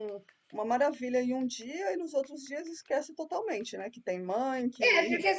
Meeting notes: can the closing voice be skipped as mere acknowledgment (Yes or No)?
No